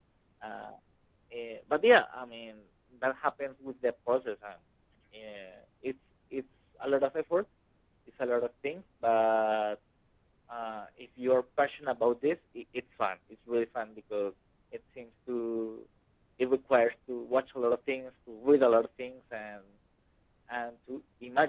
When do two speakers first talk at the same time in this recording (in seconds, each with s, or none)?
none